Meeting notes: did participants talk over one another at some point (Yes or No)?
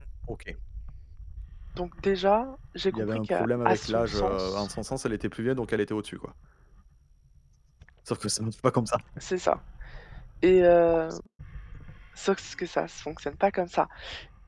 Yes